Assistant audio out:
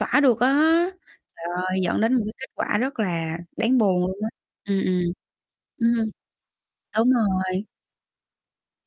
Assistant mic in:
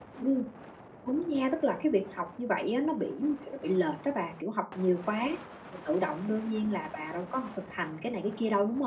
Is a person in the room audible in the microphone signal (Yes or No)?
Yes